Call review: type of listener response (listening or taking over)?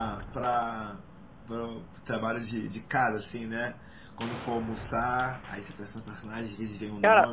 taking over